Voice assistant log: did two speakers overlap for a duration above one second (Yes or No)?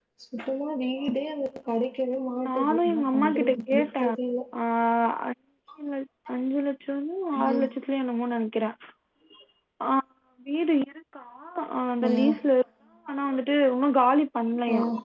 Yes